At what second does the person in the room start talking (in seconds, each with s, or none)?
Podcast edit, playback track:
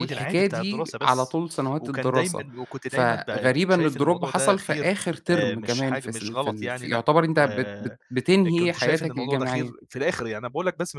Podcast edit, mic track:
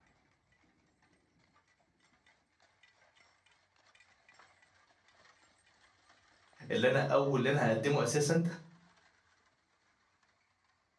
6.7 s